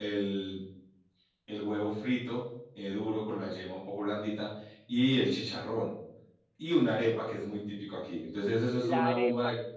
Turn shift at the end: Yes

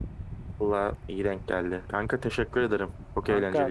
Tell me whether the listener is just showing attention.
No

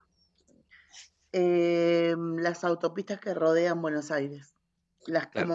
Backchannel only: Yes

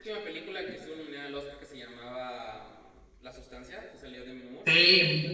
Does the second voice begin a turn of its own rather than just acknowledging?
Yes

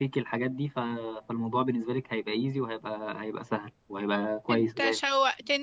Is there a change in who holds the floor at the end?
Yes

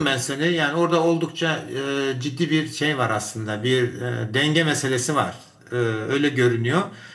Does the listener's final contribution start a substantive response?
No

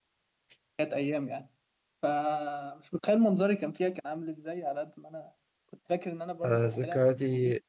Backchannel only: No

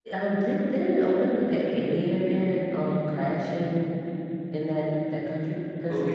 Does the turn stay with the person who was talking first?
No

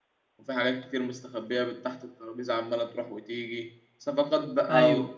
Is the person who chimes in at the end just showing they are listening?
Yes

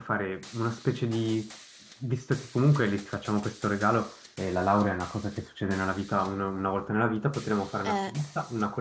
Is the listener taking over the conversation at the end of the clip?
No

